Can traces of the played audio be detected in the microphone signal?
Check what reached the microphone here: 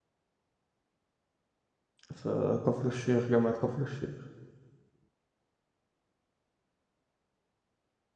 No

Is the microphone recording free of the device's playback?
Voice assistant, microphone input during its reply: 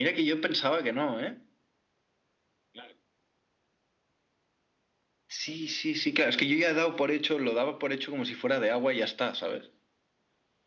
No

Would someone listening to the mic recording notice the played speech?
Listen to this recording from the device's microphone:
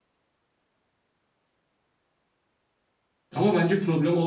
No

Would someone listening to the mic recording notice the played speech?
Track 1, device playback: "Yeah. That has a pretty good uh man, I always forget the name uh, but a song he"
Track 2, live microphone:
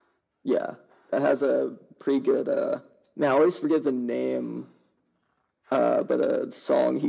Yes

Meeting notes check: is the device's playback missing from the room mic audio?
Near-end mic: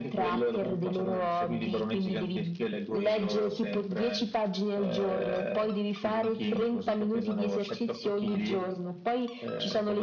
No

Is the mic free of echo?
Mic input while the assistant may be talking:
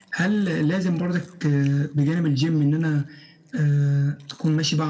No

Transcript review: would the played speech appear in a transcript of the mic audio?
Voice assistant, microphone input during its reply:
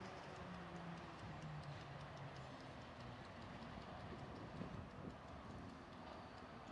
No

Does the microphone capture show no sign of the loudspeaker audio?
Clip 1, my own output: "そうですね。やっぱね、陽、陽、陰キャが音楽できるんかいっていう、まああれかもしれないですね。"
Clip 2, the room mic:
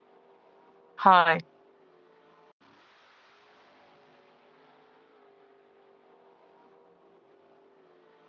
Yes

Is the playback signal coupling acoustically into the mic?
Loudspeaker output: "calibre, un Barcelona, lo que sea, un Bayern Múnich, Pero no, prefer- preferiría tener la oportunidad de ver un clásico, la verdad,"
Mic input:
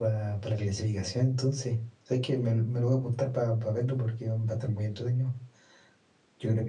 No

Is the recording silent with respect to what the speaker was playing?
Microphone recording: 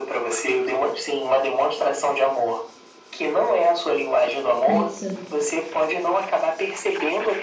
No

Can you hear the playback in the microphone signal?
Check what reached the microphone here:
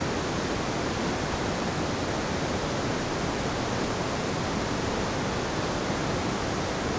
No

